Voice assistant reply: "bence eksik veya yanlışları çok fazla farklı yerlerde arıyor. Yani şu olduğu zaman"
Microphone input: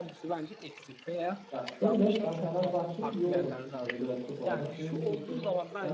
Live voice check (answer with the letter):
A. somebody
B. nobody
A